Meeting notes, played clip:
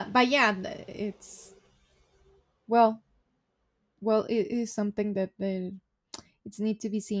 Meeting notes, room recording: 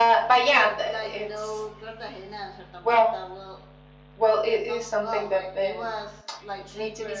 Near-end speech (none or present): present